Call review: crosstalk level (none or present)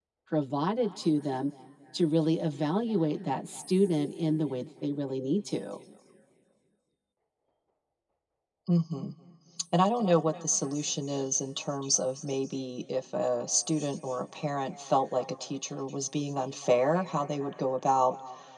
none